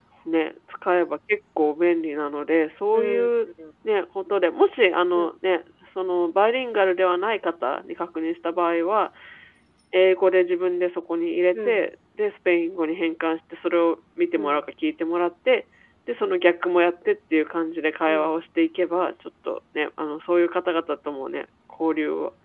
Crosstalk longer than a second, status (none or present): none